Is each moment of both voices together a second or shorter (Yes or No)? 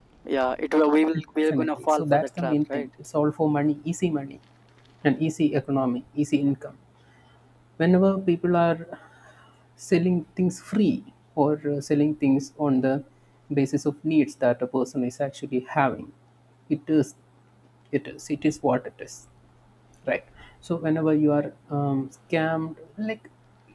No